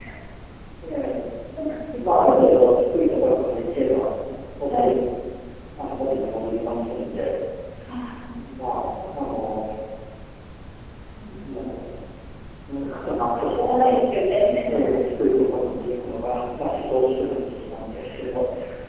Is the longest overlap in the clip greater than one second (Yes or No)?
No